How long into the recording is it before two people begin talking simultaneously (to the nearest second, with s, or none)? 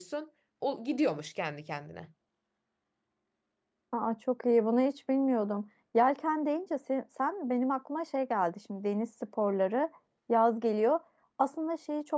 none